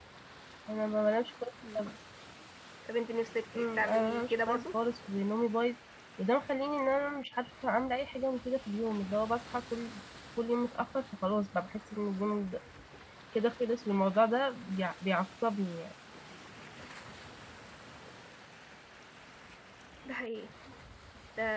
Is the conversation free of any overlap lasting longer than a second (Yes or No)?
No